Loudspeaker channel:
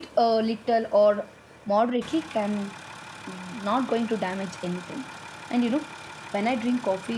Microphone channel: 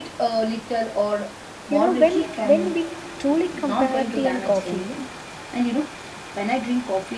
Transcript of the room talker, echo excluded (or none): You know, when when we truly compare tea and coffee,